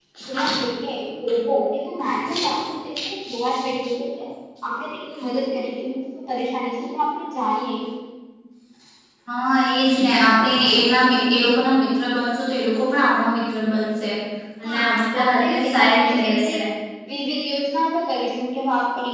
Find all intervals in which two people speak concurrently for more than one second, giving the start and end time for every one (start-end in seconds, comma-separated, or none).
15.2-16.6